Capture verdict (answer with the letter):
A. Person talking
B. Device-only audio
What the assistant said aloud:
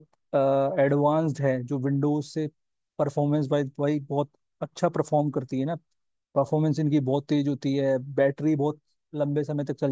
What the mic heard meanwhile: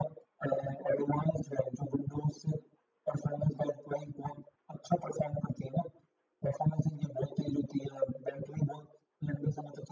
B